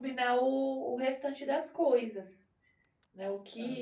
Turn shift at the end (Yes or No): Yes